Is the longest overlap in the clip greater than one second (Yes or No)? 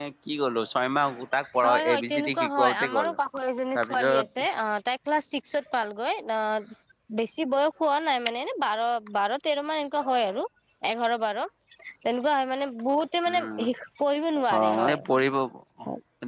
Yes